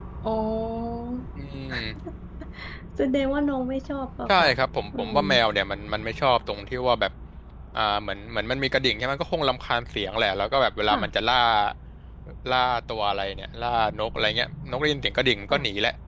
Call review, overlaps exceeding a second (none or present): none